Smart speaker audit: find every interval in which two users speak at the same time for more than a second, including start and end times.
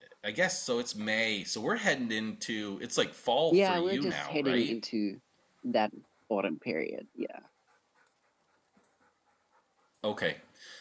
3.5-4.7

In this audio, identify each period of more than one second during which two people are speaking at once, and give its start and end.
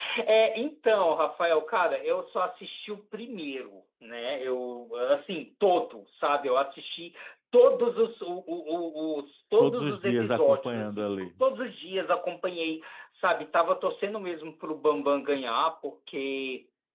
9.6-11.3

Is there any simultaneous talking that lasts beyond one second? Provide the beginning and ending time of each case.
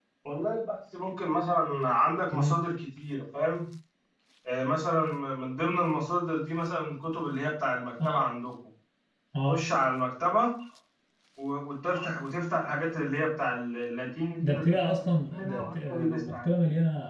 14.4-16.3

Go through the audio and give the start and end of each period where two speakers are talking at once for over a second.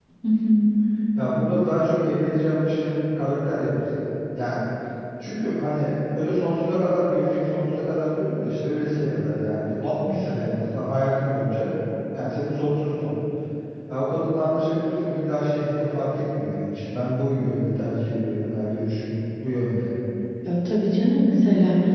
none

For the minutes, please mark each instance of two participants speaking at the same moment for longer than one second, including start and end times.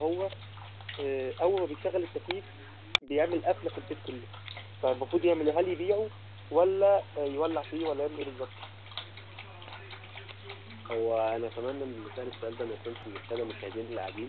none

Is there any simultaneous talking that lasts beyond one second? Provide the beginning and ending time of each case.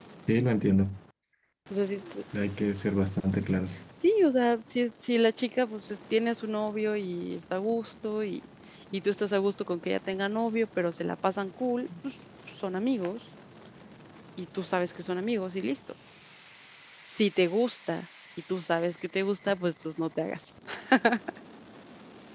none

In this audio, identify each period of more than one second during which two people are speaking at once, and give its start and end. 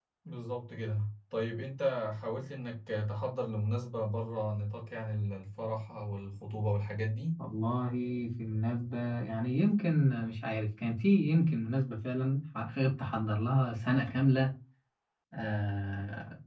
none

